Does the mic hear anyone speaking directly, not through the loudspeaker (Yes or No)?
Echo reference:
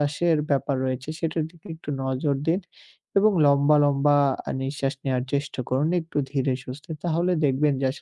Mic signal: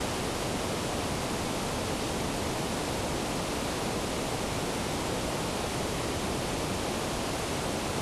No